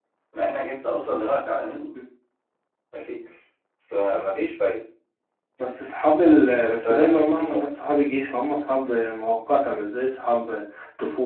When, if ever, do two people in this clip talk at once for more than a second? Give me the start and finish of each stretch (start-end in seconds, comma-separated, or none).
6.2-7.7